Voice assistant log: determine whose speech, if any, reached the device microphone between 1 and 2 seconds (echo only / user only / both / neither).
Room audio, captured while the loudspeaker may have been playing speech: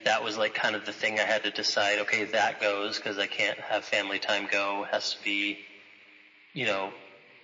echo only